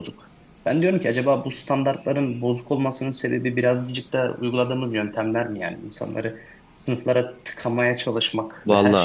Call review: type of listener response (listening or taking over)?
listening